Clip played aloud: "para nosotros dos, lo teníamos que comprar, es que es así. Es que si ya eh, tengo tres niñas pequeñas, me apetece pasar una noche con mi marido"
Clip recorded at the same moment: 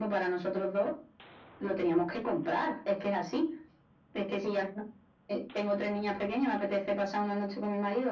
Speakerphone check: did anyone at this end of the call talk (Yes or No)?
No